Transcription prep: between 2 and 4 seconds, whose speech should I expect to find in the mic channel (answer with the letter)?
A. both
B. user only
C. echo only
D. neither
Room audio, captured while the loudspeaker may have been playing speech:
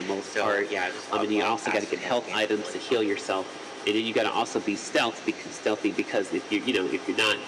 C